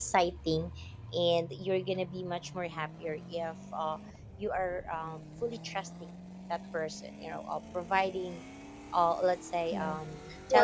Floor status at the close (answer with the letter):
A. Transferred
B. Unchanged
A